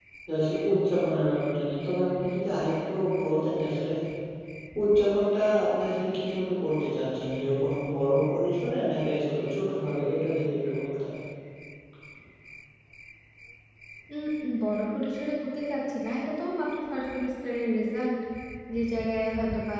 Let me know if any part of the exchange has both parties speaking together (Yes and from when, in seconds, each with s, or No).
No